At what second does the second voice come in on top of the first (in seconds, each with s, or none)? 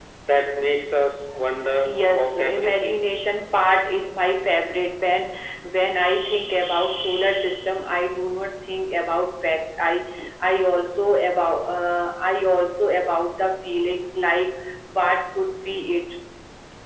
1.6 s